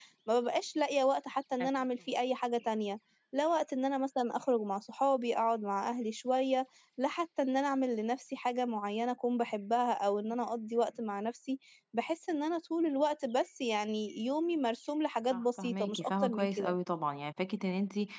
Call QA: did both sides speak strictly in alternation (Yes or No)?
No